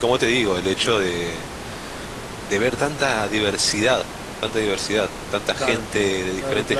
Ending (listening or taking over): taking over